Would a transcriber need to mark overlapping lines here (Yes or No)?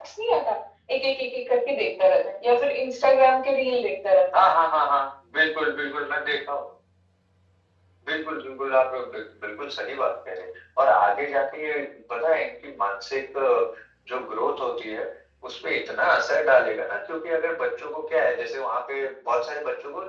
No